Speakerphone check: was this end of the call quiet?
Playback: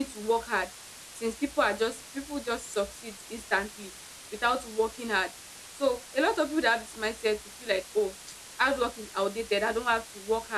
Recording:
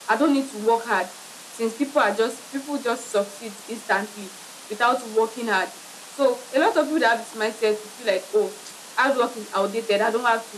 Yes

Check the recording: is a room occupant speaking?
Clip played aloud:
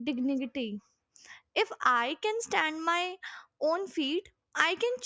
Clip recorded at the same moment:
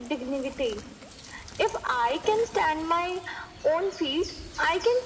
No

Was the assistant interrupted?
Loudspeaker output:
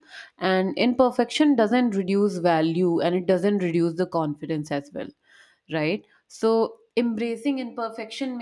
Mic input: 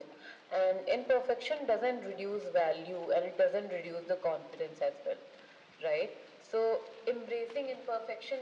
No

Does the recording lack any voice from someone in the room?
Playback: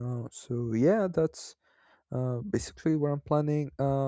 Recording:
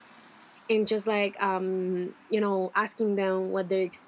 No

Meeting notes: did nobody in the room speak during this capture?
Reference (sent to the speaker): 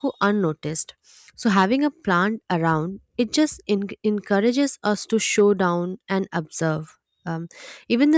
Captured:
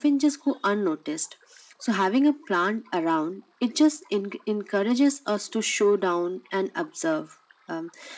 Yes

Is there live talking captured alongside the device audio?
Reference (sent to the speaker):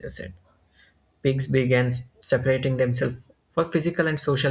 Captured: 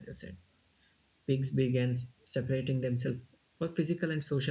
No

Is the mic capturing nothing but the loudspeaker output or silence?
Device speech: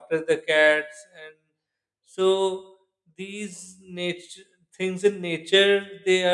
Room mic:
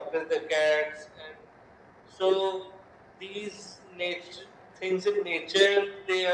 Yes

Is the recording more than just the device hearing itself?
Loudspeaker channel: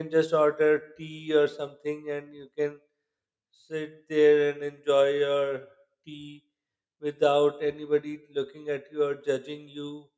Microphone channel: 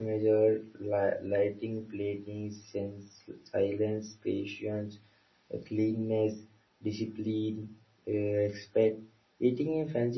Yes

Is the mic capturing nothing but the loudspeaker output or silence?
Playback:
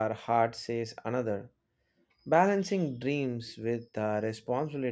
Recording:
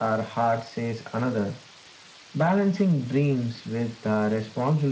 Yes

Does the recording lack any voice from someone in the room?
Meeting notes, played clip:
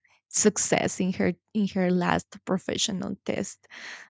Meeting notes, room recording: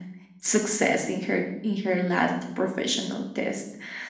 Yes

